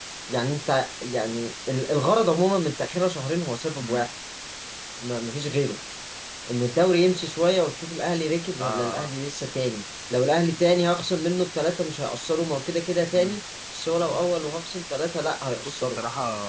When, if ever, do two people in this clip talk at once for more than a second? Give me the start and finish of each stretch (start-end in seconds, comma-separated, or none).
none